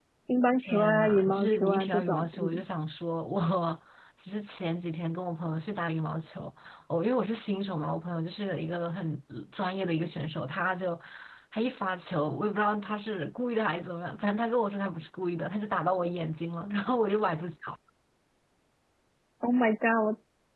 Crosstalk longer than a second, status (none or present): present